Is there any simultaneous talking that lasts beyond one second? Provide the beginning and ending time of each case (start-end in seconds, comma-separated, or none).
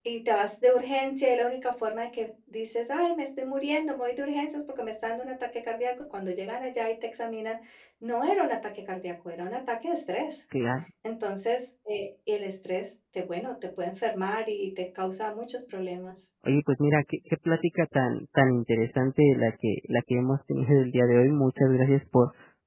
none